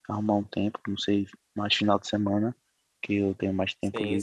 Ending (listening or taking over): taking over